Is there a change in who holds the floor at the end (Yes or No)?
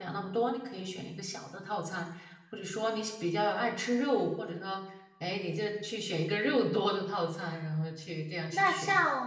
Yes